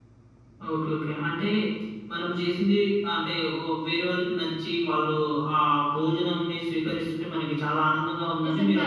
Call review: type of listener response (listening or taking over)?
taking over